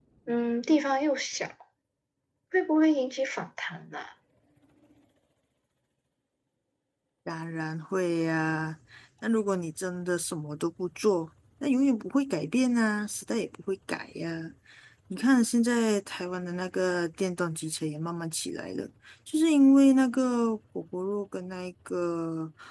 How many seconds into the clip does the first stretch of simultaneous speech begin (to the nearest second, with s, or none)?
none